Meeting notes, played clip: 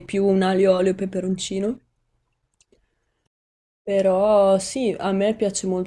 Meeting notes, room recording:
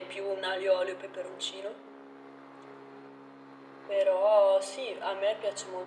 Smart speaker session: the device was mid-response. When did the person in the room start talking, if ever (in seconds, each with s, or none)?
none